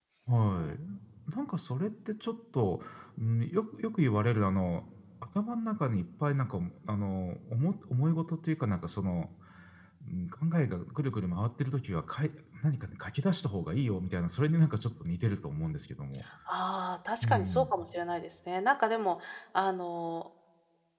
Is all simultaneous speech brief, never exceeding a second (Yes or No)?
Yes